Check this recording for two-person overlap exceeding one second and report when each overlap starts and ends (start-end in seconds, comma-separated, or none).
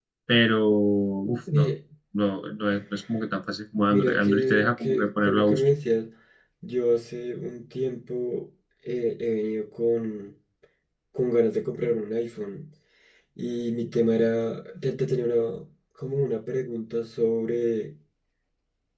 3.9-5.6